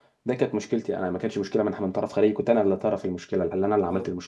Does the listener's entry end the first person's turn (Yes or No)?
No